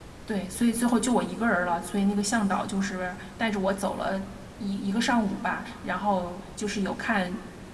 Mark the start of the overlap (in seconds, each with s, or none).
none